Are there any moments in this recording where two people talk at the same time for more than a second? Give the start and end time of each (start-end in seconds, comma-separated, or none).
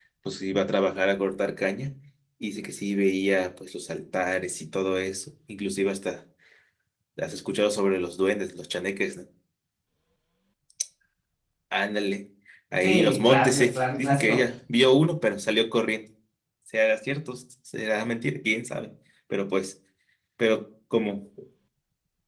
12.8-14.4